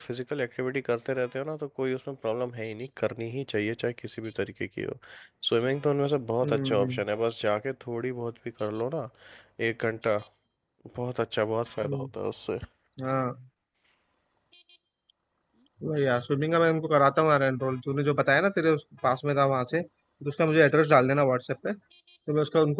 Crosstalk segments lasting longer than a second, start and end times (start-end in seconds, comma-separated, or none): none